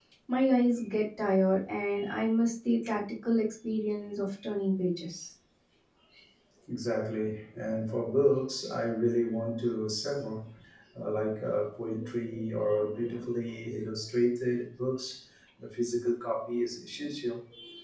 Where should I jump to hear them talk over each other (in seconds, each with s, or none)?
none